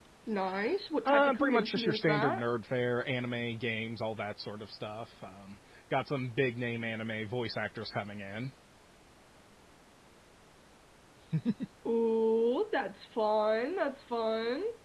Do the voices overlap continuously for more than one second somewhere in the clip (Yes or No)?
Yes